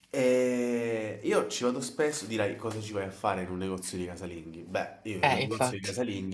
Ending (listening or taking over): listening